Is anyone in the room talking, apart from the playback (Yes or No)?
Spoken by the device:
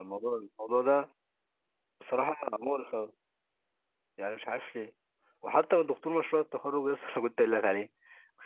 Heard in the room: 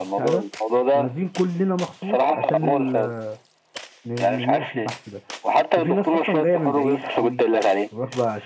Yes